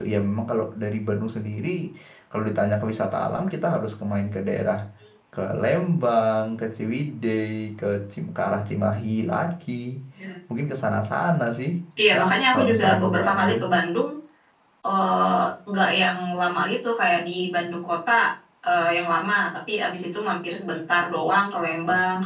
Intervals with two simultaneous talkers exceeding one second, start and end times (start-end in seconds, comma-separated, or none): 12.1-13.6